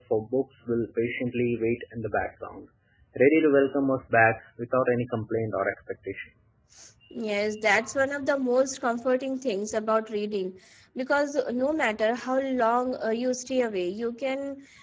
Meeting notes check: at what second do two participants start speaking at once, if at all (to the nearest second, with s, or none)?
none